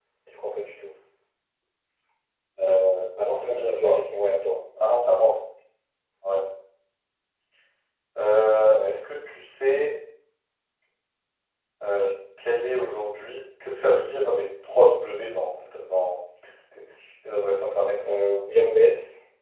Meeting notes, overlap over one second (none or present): none